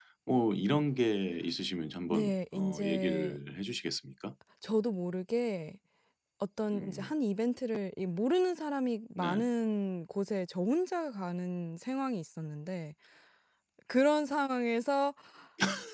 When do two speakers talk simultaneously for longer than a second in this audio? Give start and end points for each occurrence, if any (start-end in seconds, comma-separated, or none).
2.1-3.4